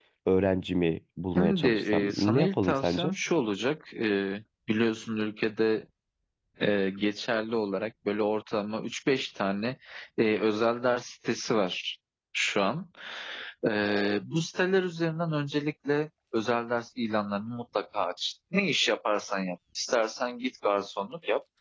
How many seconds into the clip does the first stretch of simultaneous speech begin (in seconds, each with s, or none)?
1.4 s